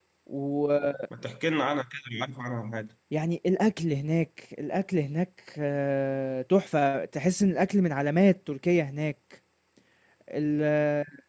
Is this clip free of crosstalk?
Yes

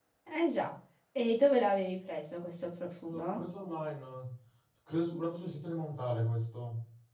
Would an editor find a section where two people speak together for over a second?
No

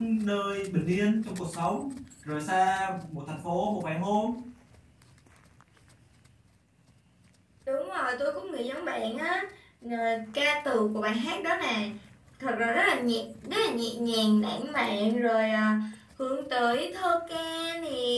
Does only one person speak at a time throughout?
Yes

